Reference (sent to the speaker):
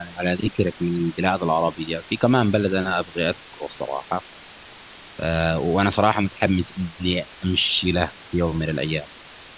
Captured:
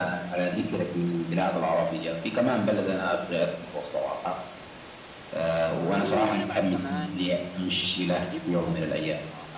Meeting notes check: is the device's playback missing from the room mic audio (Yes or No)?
No